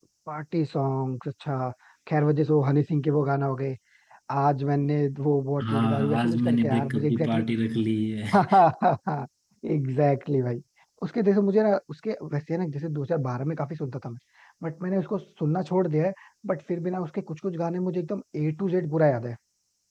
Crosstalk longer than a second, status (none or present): present